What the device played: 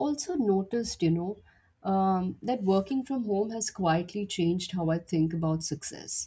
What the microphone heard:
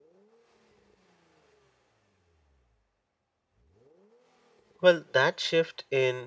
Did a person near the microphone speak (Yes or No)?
Yes